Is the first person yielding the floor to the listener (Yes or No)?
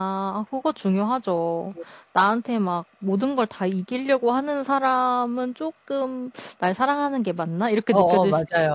Yes